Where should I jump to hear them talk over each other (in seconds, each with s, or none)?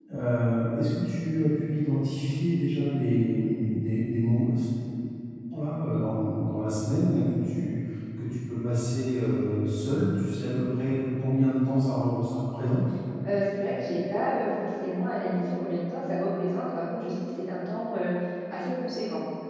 none